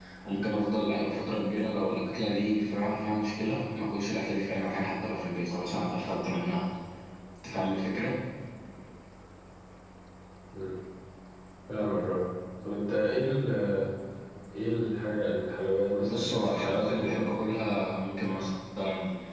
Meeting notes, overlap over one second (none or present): present